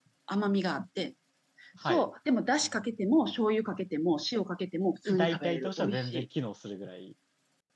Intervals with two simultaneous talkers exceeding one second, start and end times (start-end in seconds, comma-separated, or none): 5.0-6.2